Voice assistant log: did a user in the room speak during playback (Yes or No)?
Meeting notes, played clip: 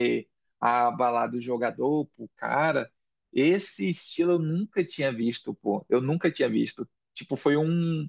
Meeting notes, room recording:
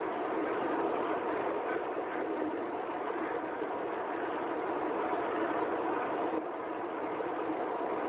No